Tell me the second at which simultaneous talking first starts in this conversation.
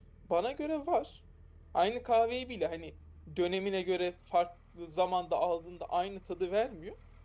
none

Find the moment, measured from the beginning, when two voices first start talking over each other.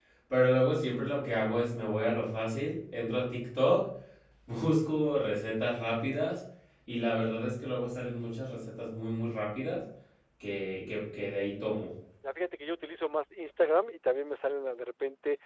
none

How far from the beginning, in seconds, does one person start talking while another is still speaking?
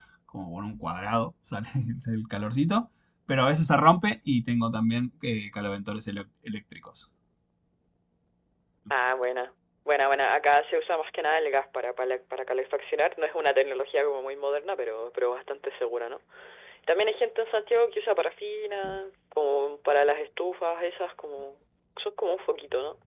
none

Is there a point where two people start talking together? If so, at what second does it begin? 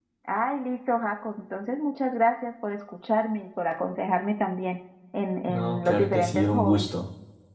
5 s

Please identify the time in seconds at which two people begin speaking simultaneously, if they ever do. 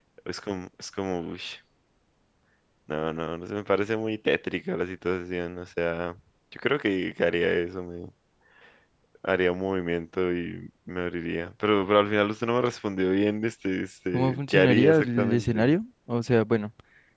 14 s

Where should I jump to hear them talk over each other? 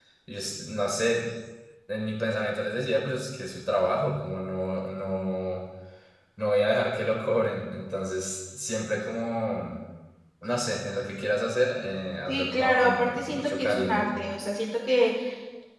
12 s

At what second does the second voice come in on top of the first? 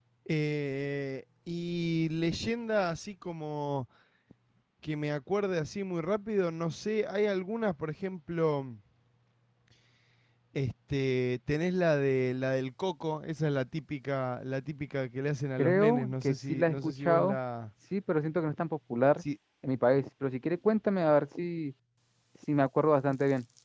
16 s

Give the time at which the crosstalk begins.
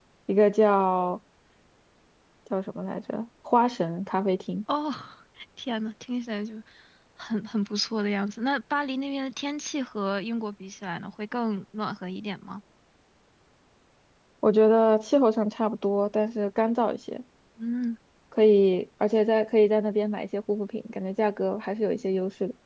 none

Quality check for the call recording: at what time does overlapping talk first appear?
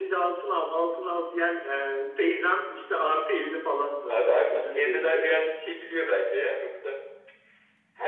4 s

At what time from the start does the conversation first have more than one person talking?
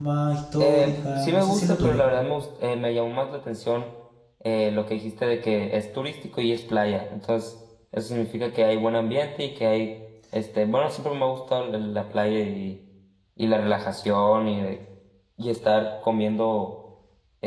1 s

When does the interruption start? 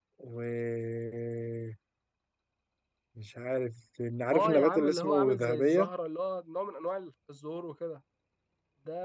4 s

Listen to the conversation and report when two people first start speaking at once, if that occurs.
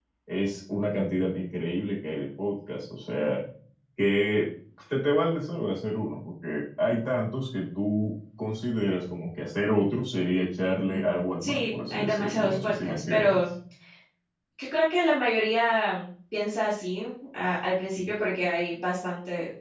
11 s

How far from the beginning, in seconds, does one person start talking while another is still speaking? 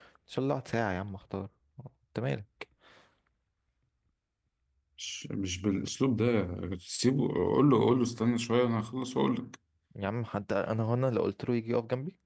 none

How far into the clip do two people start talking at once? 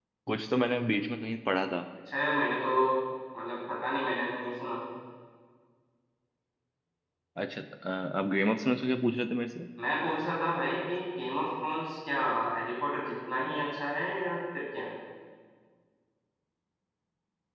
none

